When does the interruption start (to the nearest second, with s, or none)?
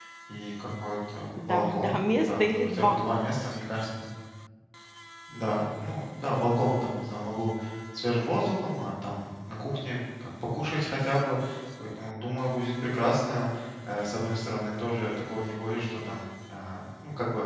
1 s